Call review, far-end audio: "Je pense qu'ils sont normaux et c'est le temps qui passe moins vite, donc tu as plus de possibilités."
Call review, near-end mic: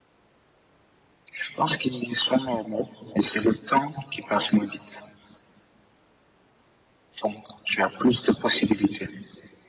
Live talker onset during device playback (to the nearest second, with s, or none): none